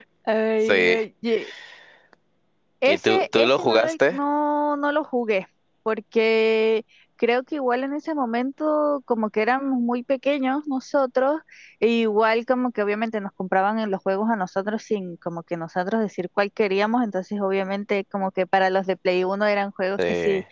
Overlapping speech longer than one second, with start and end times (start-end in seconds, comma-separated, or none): 2.9-4.2